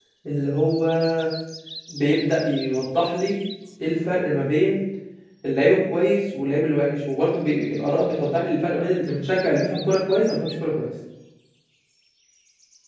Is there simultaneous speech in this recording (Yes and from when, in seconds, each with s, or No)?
No